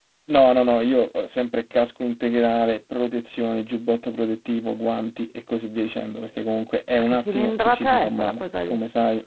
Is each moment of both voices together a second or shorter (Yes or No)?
No